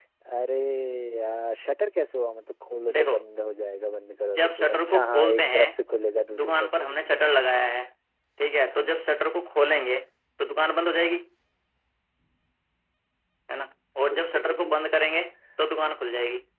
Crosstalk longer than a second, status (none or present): present